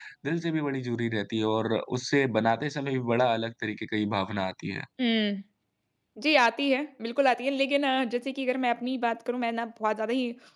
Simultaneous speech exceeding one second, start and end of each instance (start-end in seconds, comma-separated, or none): none